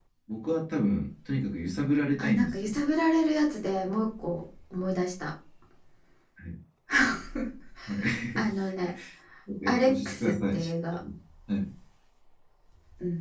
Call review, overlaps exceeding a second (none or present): present